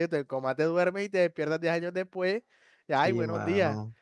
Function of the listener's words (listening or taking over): taking over